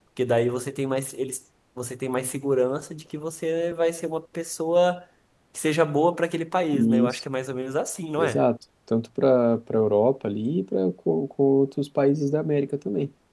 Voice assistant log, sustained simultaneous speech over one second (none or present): none